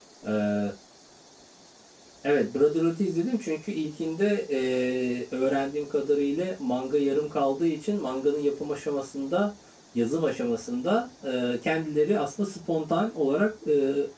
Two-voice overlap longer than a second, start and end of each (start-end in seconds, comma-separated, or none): none